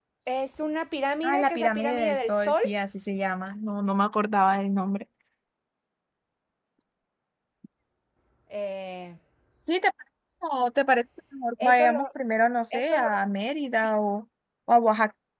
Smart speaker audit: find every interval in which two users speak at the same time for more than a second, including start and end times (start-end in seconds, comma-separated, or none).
1.2-2.6